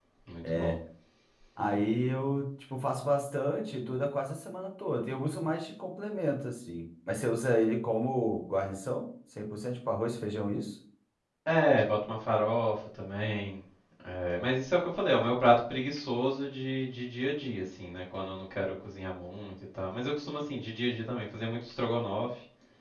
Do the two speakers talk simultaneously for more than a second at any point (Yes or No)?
No